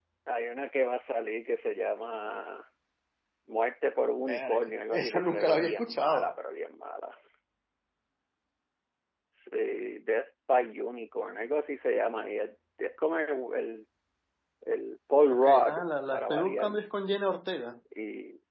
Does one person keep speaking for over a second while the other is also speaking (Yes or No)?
Yes